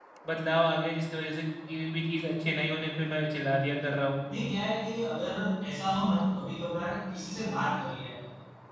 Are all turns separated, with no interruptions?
Yes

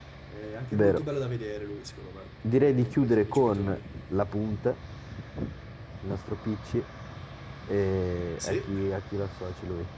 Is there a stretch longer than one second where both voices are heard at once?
Yes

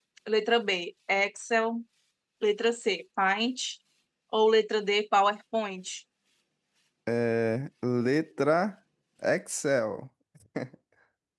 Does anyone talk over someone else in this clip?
No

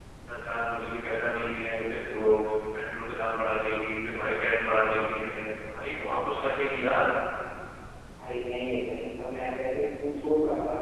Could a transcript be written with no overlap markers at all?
Yes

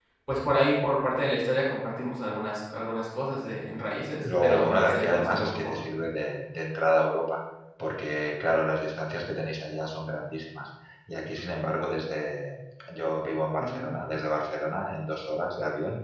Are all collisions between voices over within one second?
No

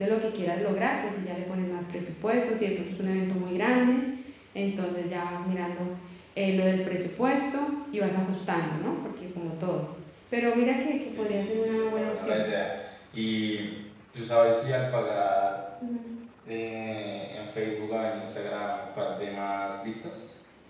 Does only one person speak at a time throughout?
No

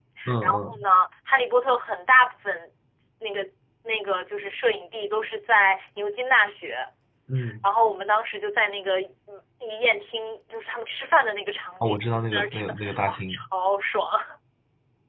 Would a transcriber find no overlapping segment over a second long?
No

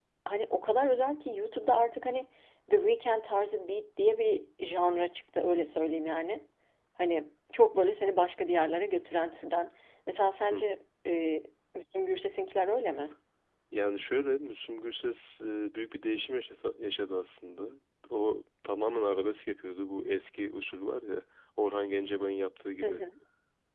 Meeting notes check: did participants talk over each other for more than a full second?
No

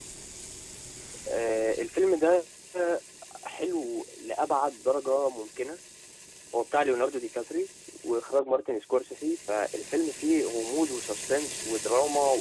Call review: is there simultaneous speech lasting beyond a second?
No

